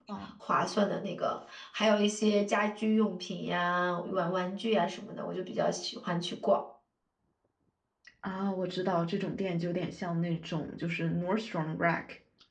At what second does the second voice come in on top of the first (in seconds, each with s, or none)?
none